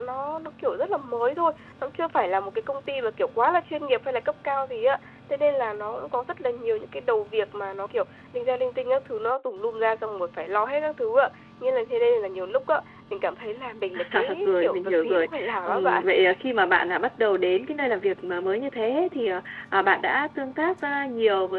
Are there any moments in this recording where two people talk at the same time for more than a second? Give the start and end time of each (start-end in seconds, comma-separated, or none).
14.0-16.0